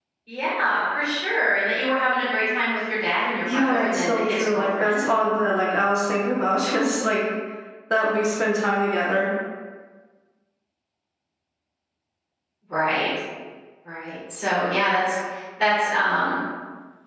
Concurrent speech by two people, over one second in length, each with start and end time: 3.5-5.0

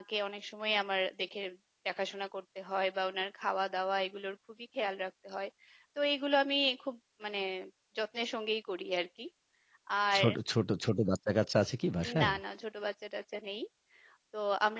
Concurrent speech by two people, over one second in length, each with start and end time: none

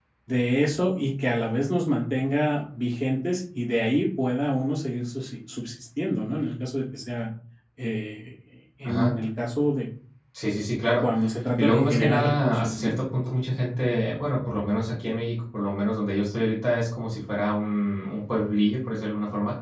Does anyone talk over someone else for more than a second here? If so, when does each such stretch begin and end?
11.6-12.9

